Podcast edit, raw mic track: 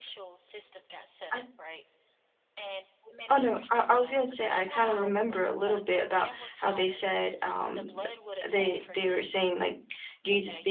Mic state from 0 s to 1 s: echo only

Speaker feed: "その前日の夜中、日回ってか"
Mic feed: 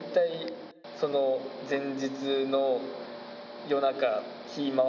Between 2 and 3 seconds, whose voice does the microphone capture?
echo only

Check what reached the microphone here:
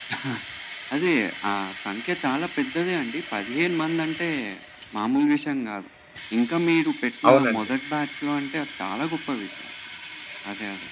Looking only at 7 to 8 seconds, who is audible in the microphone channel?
both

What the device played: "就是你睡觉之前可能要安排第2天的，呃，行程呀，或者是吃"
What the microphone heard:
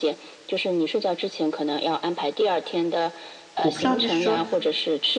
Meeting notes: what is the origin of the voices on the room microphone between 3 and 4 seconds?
both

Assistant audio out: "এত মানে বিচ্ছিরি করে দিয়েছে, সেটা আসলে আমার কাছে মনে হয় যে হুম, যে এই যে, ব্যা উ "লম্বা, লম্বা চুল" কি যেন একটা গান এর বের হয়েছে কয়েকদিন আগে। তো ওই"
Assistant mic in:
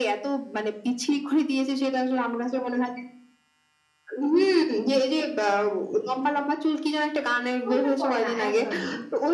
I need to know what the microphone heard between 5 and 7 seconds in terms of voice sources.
echo only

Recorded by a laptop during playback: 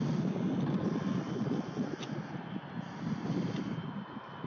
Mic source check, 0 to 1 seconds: neither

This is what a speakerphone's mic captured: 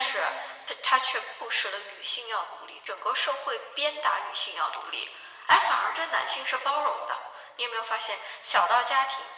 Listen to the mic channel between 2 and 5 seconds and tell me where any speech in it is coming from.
echo only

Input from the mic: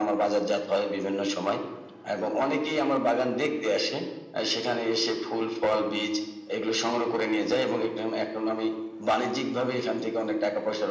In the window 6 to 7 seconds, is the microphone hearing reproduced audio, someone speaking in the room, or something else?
echo only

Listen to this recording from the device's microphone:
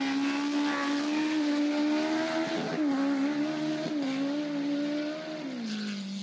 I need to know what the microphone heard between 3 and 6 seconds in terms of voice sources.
neither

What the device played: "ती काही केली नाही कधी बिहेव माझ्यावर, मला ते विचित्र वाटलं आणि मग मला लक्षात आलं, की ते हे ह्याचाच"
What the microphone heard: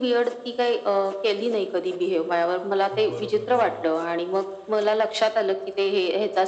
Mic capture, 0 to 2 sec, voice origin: echo only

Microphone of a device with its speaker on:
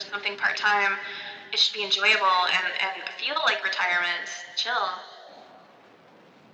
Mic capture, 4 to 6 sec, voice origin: echo only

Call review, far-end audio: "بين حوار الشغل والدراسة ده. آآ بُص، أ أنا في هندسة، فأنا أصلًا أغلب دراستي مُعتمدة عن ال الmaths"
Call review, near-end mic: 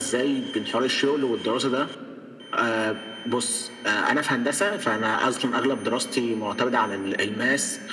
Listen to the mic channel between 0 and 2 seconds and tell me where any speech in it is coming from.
echo only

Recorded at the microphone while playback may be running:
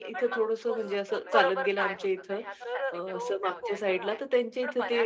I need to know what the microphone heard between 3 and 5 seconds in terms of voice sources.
both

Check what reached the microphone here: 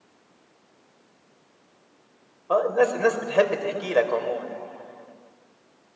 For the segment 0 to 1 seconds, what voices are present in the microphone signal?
neither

